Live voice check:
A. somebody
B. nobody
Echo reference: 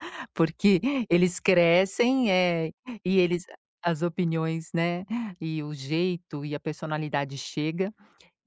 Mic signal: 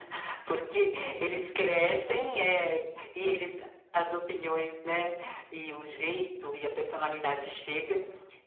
A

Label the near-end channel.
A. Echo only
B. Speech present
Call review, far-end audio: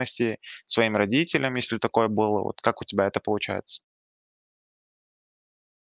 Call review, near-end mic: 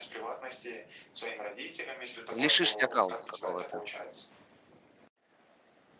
B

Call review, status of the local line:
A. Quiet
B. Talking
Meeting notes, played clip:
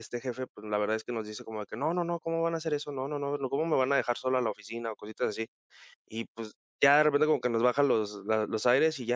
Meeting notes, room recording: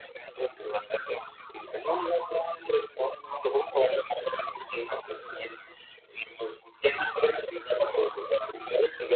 A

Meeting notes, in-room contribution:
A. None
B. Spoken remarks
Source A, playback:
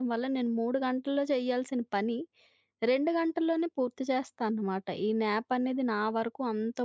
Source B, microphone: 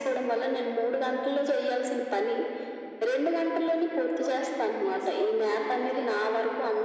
B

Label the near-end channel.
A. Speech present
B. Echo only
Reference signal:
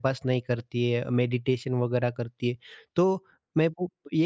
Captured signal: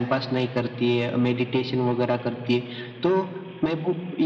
B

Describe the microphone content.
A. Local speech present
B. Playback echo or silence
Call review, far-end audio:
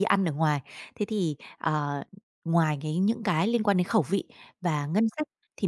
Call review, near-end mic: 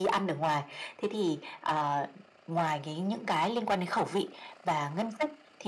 B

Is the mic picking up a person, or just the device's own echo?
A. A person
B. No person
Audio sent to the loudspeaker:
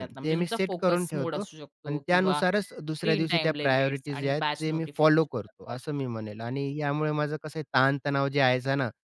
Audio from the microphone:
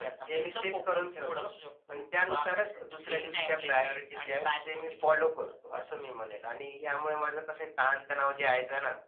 B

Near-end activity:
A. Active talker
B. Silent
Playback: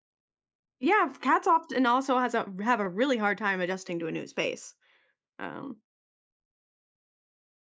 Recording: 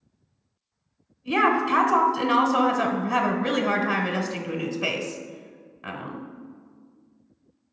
B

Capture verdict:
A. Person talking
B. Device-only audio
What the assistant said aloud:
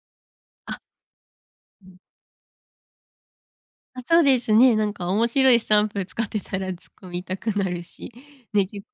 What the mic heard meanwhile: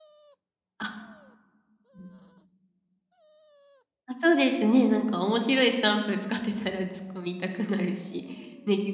B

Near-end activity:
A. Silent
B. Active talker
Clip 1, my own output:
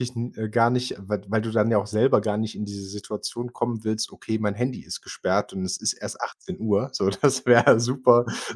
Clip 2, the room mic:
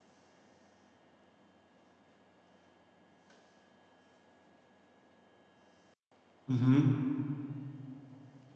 B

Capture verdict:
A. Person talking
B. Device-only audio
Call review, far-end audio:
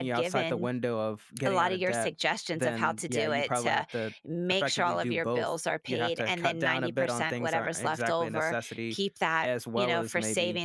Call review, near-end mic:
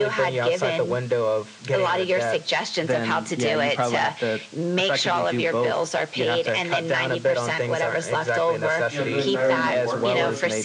A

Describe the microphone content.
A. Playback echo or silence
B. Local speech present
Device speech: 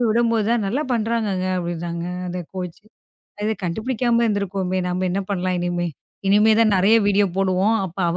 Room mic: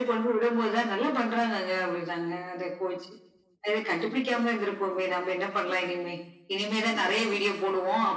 A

